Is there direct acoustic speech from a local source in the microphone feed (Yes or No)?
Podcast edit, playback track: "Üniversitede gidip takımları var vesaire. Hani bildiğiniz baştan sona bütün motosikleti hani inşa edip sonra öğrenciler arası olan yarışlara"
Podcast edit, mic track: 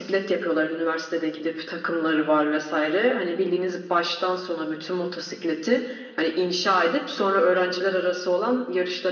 No